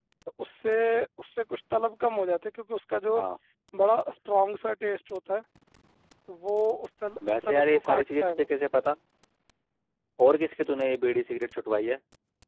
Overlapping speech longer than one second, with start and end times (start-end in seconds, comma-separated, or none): 7.3-8.5